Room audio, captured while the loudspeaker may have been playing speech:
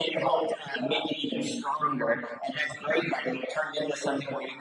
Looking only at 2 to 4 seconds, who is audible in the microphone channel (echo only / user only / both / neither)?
echo only